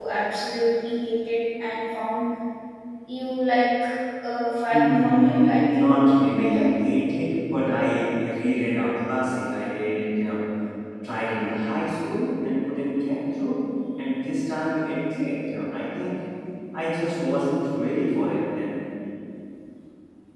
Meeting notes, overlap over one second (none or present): present